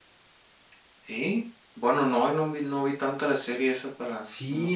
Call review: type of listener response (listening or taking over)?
taking over